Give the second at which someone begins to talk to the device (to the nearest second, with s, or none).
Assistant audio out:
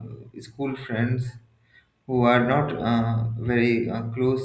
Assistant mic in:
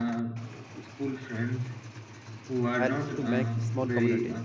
3 s